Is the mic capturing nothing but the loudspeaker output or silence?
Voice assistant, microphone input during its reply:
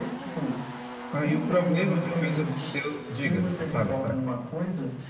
No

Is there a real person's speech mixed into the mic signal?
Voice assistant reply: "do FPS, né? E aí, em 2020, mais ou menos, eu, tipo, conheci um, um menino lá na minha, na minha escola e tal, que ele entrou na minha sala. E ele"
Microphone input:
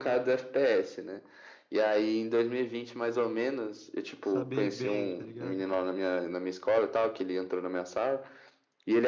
Yes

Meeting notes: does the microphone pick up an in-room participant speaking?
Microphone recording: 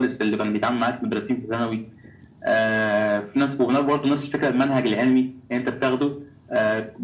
No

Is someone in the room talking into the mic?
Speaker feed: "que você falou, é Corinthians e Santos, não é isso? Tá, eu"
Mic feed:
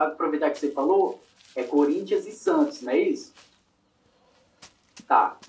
No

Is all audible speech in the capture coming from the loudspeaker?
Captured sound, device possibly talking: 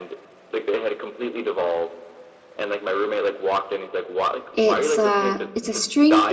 No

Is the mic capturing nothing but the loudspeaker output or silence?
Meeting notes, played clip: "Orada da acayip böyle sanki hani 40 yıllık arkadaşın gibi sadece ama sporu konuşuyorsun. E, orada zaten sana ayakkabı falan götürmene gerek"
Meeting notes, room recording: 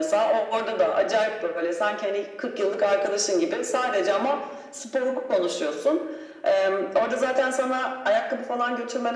Yes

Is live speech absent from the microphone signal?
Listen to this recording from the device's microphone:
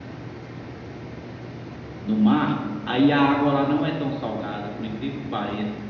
No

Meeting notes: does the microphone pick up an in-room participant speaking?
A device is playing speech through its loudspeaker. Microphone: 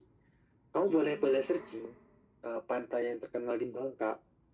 Yes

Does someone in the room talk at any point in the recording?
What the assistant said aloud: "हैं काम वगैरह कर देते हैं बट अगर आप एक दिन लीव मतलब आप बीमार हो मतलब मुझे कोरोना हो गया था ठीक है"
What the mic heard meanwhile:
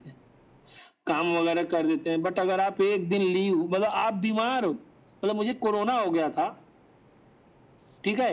No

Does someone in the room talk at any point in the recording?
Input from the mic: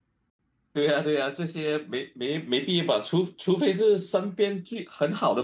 Yes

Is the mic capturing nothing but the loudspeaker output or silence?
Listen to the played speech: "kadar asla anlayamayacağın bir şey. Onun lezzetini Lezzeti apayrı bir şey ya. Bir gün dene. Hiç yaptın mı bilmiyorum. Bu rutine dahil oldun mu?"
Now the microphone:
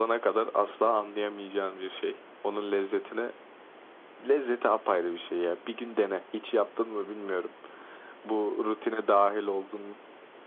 Yes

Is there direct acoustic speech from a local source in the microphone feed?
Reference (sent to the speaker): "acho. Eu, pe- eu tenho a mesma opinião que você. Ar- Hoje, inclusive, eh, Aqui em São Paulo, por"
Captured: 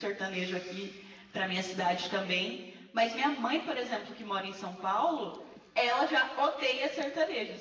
Yes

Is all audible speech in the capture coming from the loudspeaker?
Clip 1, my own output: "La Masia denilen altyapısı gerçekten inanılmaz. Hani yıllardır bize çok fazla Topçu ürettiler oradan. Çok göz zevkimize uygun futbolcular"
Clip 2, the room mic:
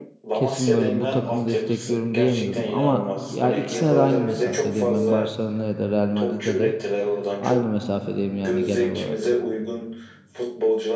No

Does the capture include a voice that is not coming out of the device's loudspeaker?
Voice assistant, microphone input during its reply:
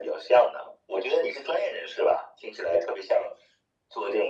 No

